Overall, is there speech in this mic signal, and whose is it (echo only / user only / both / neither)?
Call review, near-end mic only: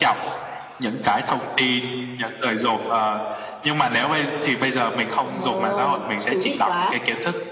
both